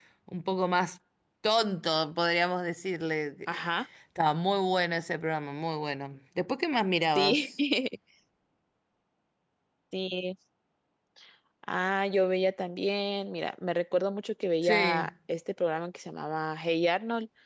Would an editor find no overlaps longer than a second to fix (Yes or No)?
Yes